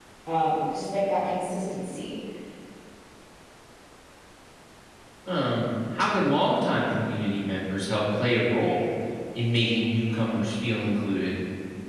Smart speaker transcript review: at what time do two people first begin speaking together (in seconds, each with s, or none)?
none